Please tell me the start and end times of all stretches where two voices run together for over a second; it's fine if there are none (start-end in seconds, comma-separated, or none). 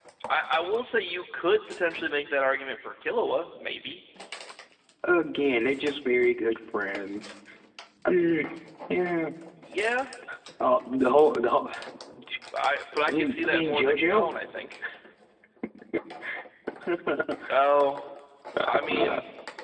13.1-14.3